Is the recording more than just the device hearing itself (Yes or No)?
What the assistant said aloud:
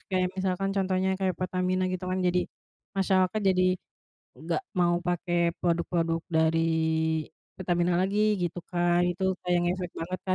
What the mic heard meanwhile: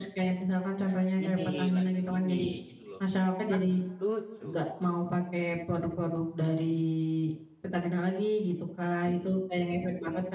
Yes